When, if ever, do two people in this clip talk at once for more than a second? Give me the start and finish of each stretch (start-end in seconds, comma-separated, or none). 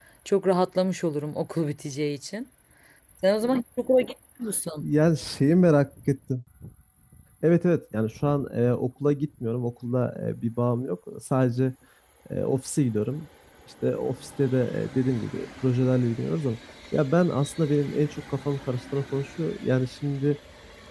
none